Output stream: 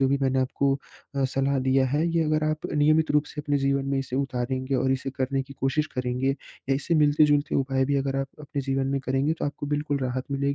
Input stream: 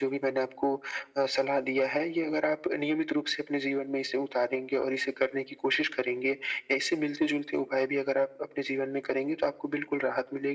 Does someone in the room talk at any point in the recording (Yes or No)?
No